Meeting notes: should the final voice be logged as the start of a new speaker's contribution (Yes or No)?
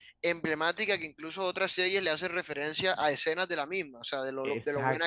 Yes